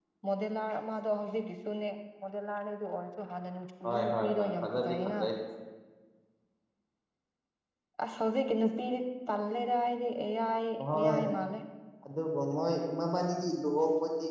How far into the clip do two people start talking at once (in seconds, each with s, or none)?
3.9 s